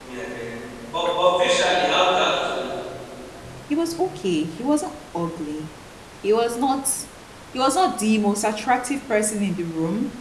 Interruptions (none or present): none